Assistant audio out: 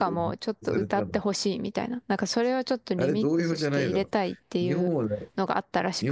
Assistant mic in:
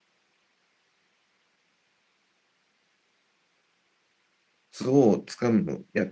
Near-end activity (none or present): present